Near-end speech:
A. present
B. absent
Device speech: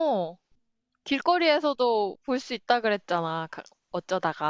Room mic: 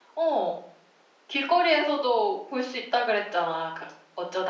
B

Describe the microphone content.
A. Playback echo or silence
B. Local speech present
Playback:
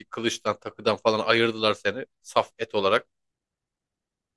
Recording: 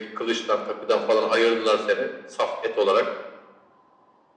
A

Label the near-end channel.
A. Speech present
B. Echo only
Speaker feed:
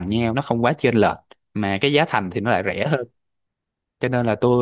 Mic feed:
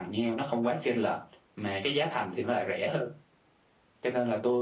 B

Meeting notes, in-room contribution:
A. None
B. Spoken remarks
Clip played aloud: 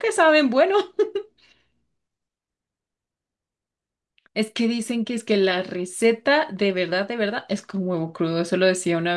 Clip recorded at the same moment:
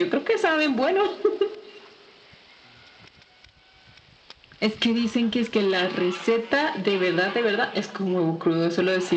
A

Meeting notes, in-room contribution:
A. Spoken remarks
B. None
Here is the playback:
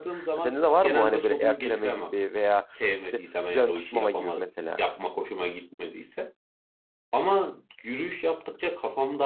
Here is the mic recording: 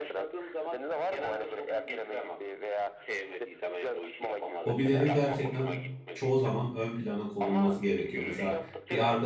A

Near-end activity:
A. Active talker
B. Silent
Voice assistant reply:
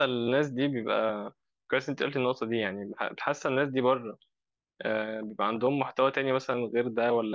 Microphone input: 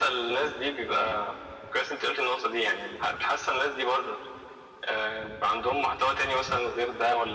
B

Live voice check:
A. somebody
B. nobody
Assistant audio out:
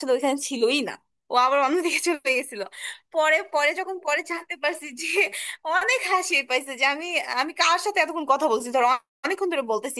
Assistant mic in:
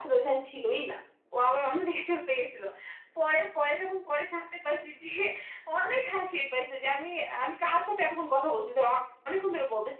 B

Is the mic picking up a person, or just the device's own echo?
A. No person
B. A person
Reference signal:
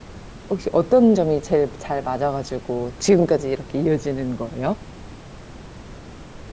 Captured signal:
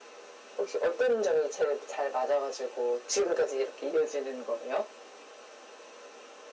A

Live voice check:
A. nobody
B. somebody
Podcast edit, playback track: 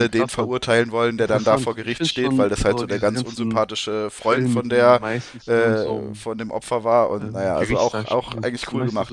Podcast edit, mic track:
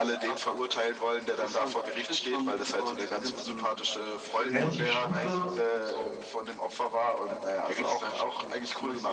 B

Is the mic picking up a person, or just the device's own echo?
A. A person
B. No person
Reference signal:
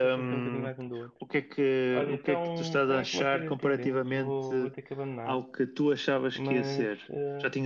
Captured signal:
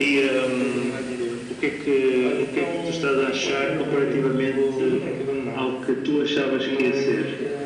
A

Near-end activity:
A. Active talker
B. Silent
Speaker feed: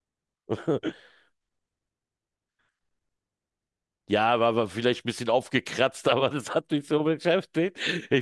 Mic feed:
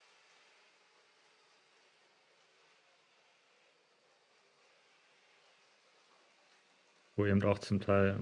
A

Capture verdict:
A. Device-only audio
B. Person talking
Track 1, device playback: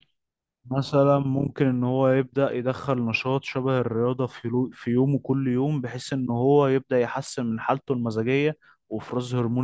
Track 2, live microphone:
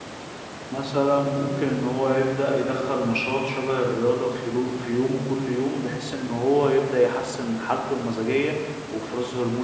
A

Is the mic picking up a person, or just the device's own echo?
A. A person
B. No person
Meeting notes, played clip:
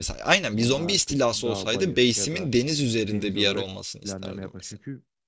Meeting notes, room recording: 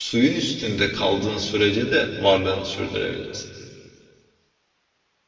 A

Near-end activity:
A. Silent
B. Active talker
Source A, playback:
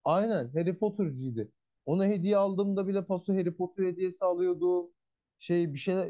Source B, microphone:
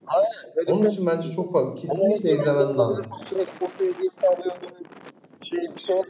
B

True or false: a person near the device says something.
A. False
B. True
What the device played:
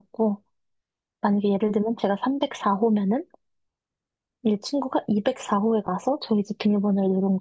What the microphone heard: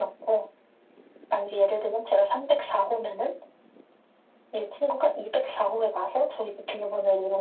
A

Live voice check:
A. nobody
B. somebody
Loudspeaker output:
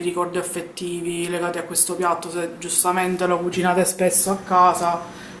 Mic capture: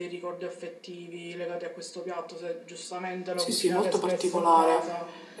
B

